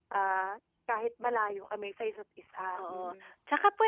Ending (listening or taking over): taking over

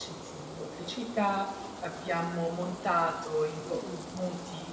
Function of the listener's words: listening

